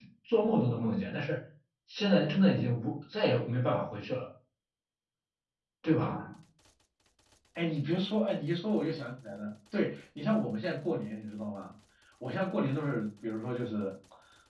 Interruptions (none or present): none